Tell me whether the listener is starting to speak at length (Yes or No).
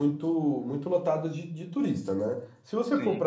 No